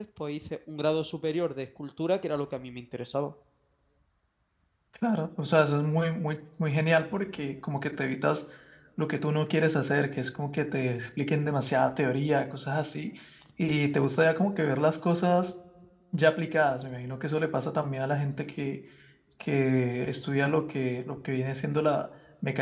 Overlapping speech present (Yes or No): No